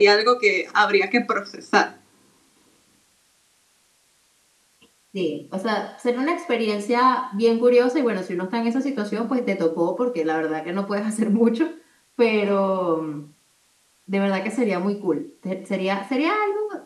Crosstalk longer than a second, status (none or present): none